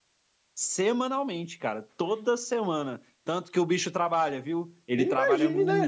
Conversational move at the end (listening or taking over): taking over